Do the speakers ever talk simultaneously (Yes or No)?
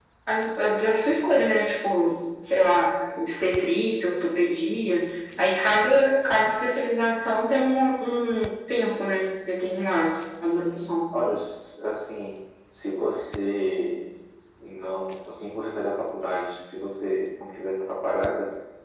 No